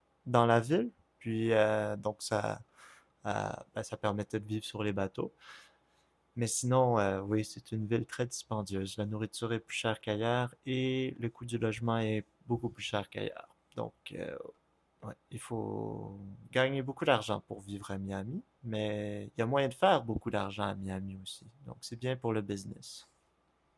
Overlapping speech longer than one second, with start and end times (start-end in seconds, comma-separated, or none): none